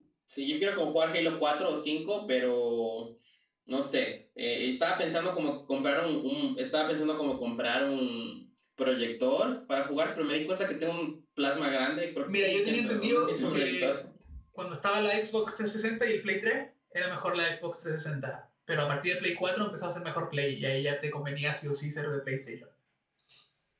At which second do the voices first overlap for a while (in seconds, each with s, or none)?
12.3 s